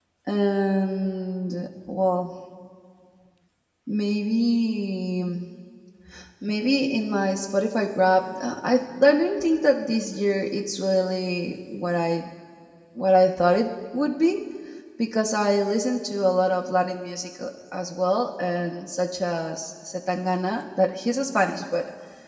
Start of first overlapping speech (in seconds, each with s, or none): none